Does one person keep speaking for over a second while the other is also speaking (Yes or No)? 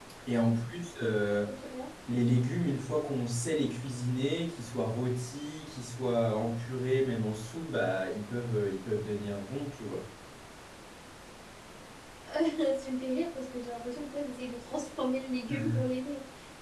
No